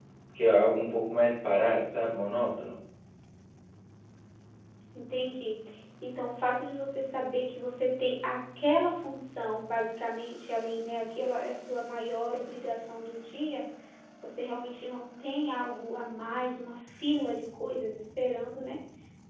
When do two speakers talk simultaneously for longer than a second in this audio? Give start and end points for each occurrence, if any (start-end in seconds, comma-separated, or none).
none